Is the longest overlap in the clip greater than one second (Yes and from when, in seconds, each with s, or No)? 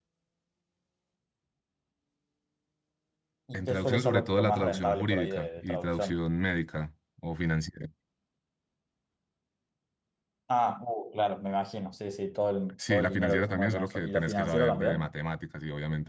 Yes, from 3.5 s